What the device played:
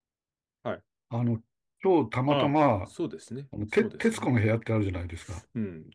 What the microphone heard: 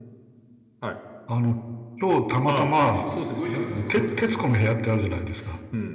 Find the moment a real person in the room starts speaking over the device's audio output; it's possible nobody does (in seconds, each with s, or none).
2.7 s